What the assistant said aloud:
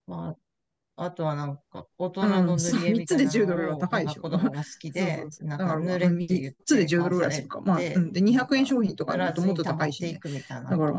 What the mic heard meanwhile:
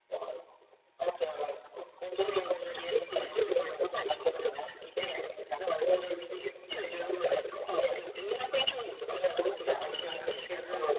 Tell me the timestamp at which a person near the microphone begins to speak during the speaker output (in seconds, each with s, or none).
9.6 s